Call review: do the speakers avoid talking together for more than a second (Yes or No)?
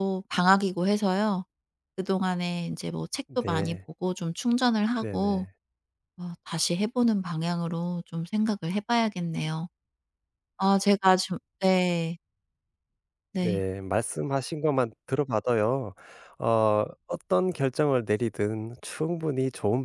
Yes